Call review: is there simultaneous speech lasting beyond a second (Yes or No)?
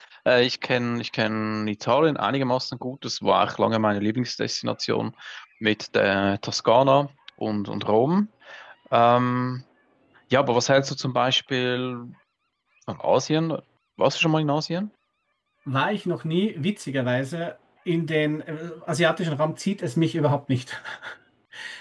No